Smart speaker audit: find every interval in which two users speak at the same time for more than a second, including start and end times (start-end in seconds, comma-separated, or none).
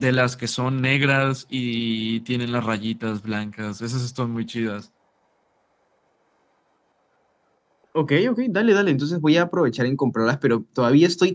none